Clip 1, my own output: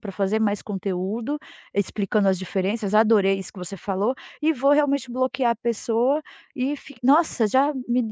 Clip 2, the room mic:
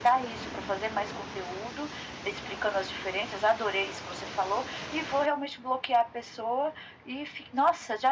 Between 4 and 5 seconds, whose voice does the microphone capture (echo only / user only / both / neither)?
echo only